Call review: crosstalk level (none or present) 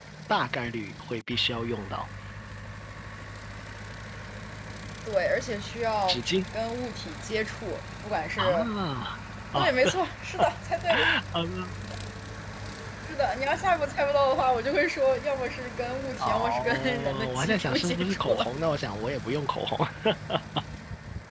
present